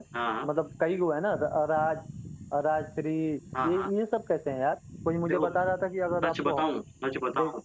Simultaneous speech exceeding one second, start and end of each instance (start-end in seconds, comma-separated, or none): none